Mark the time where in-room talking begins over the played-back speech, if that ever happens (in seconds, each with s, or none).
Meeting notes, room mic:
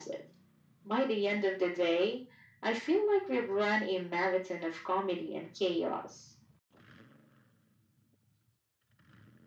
none